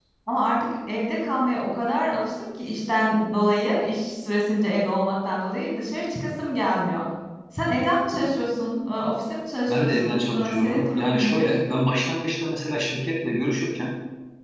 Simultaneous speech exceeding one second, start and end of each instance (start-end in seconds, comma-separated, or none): 9.7-11.5